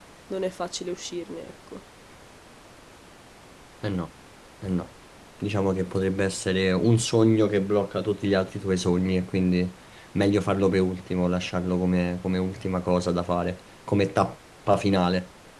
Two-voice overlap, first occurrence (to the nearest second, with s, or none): none